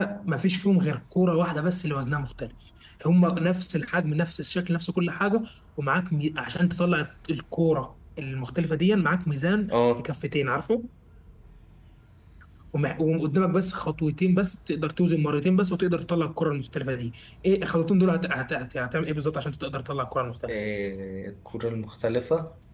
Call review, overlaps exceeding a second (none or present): none